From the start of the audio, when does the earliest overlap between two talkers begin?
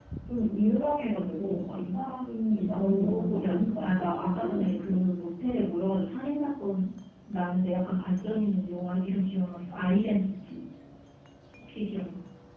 3 s

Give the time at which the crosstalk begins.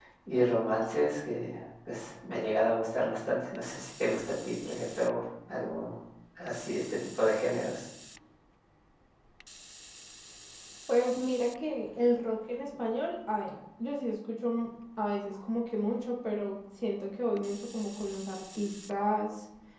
none

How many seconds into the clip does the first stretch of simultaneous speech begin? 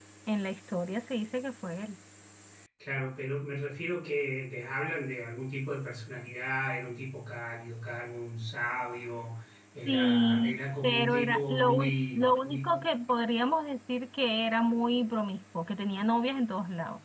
10 s

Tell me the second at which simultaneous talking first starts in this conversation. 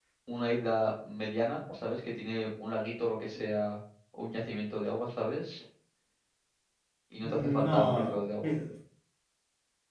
7 s

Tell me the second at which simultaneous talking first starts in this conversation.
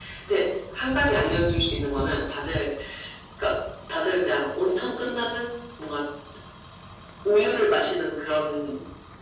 none

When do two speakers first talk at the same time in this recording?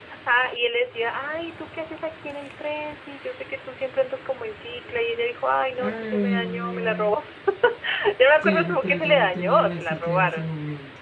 6 s

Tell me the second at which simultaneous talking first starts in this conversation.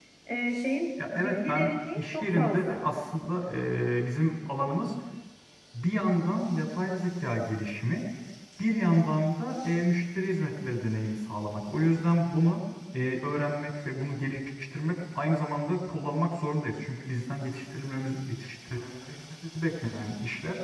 1 s

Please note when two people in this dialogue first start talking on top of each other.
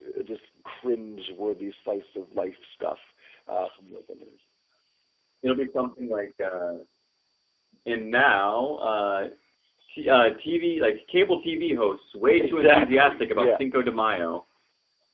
12 s

